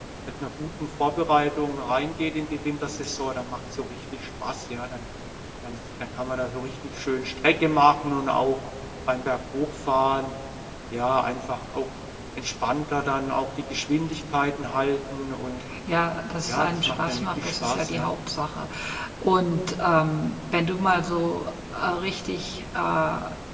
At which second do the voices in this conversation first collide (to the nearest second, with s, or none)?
16 s